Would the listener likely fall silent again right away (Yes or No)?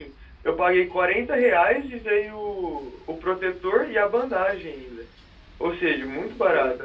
No